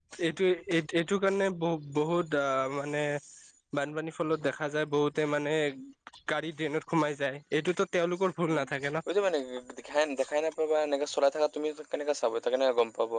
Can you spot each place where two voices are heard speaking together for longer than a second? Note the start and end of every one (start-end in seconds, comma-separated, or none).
none